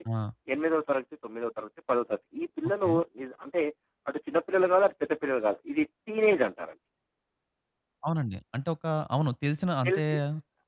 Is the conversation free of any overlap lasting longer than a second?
Yes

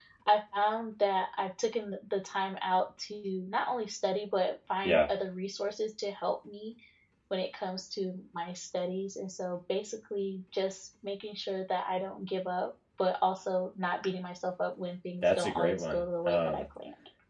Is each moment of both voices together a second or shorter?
No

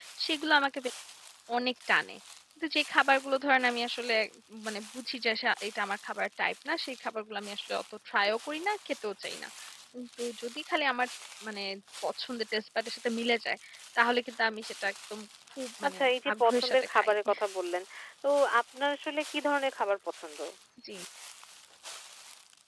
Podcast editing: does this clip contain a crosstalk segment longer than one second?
Yes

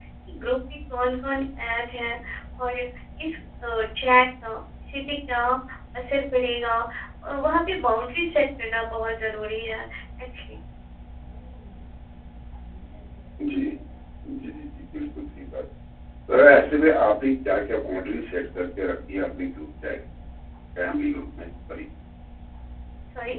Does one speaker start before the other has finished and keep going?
No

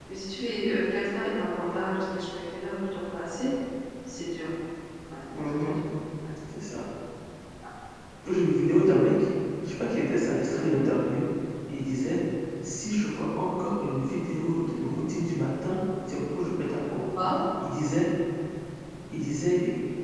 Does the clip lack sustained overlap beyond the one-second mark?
Yes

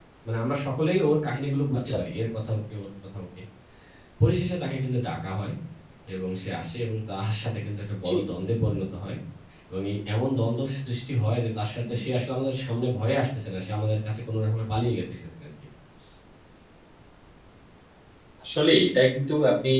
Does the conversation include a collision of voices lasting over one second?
No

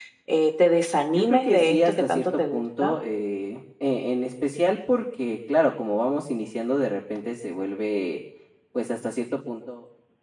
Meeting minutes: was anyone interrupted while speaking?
Yes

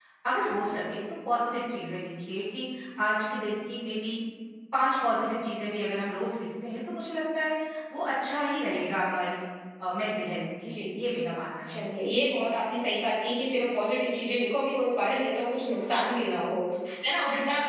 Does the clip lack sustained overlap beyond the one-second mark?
Yes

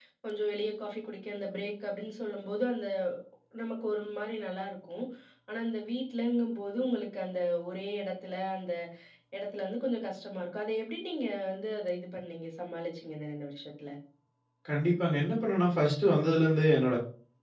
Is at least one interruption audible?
No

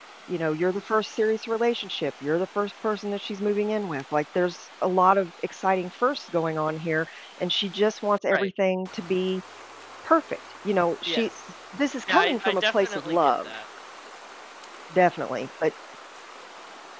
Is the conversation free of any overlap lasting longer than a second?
No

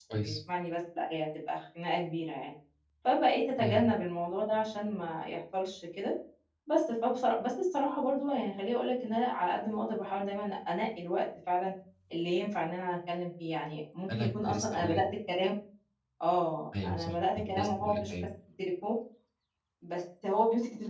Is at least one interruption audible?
Yes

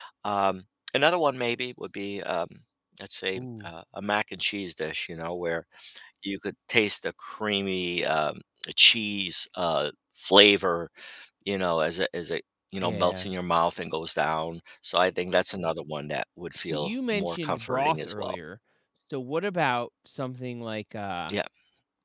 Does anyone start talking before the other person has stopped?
Yes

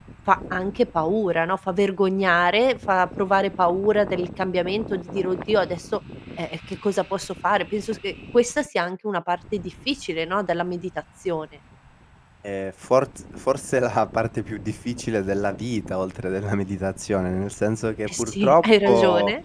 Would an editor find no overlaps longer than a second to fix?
No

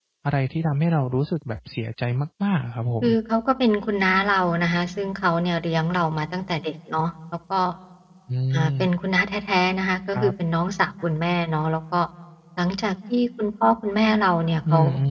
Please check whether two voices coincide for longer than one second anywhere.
No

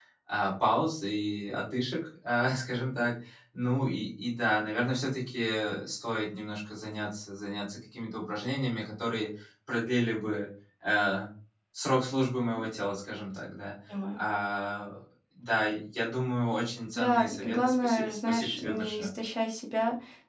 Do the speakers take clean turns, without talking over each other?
No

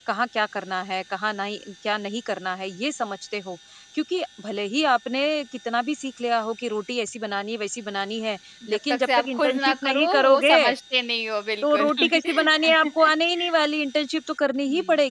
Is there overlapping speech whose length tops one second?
Yes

